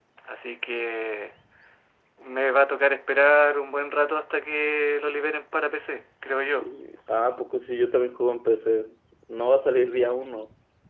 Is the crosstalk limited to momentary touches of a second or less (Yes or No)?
Yes